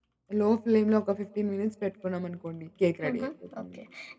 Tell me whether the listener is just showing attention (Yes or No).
No